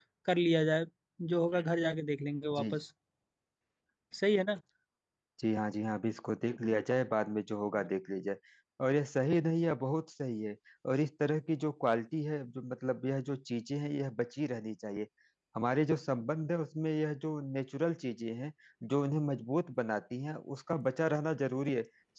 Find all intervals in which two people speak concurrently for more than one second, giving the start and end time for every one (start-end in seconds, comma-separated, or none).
none